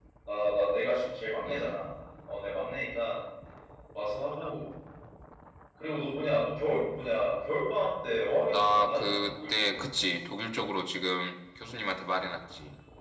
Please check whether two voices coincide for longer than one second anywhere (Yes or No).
Yes